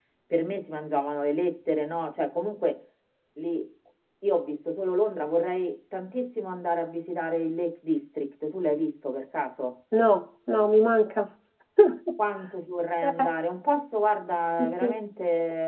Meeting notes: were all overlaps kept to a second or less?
Yes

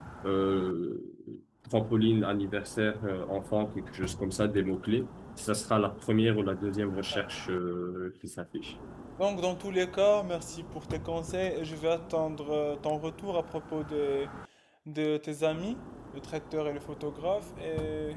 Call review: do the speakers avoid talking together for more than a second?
Yes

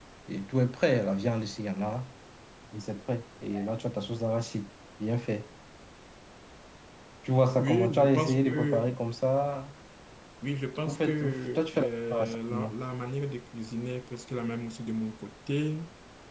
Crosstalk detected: Yes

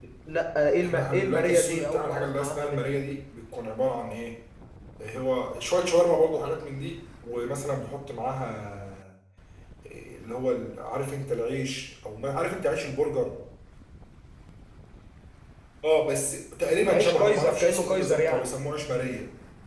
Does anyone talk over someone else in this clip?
Yes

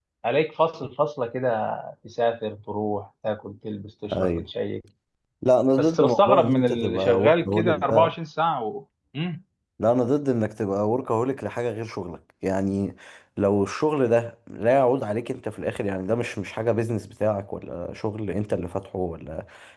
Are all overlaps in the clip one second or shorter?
No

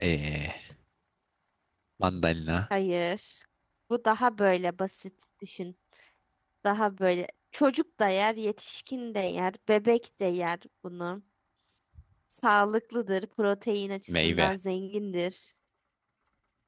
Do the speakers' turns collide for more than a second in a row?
No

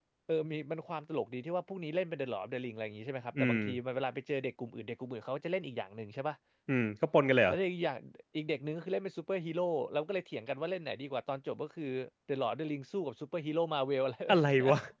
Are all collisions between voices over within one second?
Yes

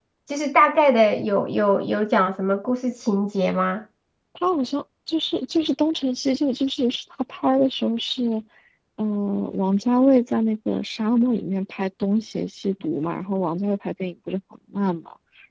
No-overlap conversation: Yes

